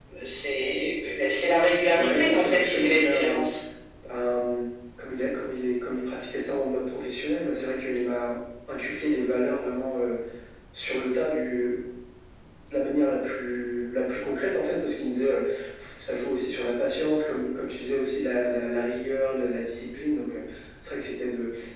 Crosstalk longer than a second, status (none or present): present